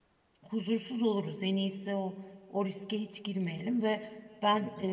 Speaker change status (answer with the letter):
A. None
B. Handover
A